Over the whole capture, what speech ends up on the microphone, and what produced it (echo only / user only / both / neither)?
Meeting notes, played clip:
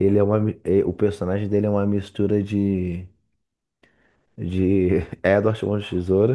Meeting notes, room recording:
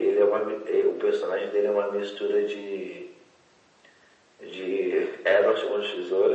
echo only